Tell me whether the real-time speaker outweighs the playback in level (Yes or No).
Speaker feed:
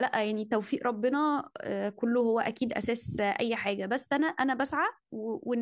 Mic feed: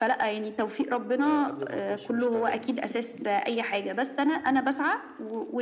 No